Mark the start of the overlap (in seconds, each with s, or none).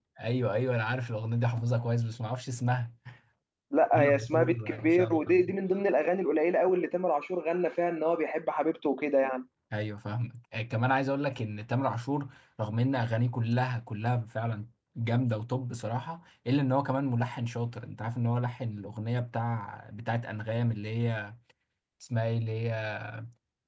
3.9 s